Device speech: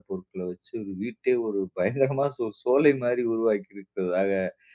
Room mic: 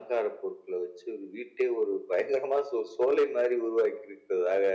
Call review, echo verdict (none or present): present